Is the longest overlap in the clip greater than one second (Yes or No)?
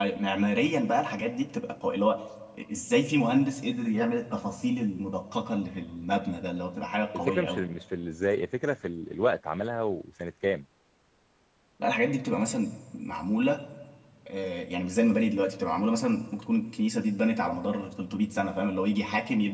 No